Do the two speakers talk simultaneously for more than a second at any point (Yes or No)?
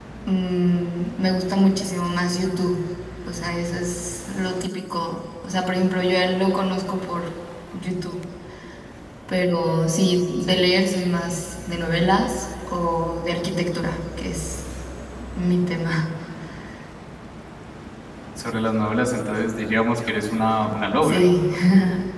No